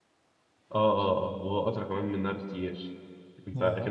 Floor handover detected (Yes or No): No